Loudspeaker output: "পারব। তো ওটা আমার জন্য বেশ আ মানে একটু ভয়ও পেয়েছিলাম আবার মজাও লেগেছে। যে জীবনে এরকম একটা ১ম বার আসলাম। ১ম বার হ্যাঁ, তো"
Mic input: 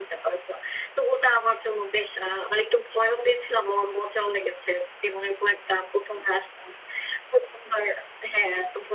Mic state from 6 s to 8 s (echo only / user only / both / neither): echo only